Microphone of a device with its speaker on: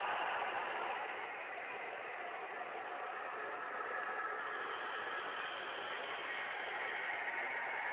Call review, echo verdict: none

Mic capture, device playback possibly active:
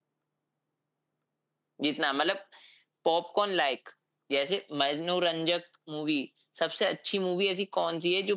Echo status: none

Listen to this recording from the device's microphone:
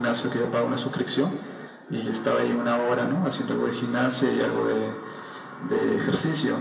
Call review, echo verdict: present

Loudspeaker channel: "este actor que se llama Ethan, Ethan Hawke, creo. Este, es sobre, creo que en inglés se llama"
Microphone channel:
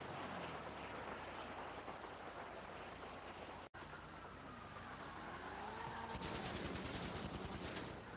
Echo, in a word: none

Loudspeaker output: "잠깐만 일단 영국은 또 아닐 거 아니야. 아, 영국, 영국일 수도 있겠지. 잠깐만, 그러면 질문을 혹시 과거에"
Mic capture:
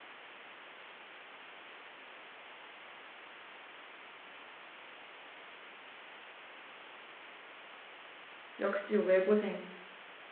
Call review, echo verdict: none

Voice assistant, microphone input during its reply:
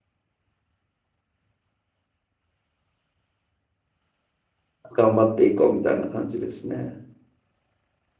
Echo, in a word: none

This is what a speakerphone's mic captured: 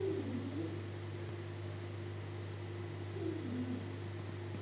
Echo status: none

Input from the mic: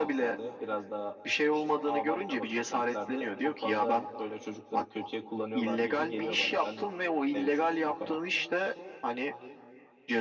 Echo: present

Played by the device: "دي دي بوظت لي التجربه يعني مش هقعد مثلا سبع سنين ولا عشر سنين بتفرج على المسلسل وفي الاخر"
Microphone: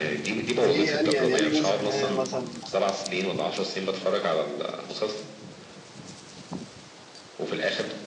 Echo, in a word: present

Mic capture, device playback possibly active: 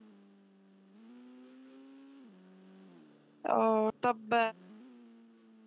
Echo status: none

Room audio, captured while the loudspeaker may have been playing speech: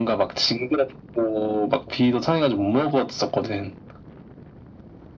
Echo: present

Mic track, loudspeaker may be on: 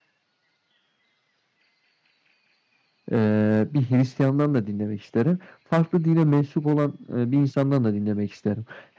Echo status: none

